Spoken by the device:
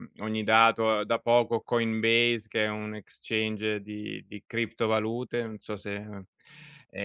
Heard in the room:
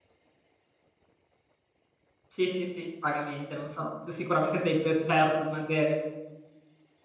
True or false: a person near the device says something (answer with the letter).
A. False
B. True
B